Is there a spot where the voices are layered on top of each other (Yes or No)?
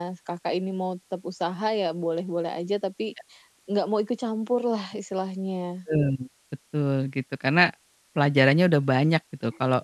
No